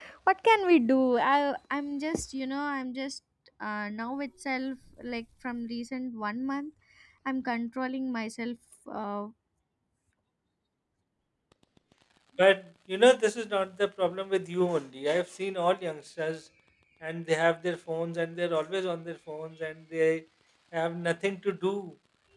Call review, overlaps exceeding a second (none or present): none